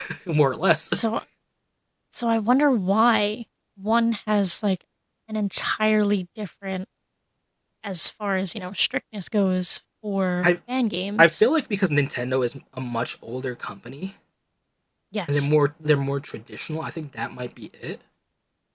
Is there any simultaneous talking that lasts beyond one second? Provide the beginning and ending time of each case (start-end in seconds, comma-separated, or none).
none